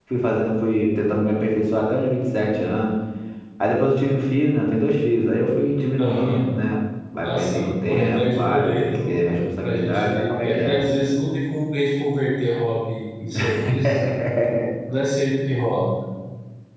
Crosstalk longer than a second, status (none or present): present